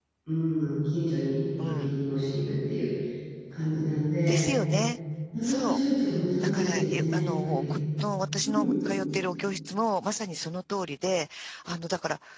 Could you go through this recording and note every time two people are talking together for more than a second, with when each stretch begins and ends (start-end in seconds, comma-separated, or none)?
6.4-7.6